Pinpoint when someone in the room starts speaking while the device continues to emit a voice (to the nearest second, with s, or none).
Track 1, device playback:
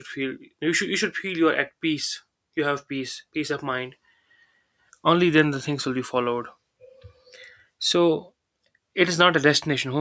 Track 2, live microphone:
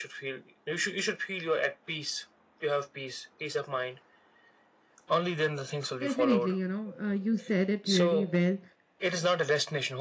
6 s